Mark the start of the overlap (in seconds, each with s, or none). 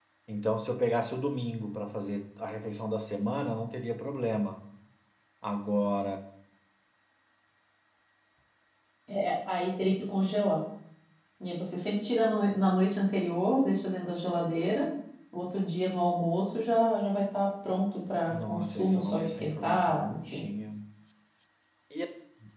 18.3 s